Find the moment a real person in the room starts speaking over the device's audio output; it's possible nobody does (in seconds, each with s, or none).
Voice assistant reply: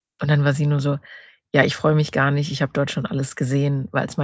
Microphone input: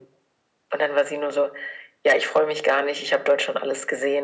none